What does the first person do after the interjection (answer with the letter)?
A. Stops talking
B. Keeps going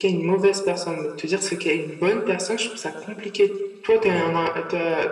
B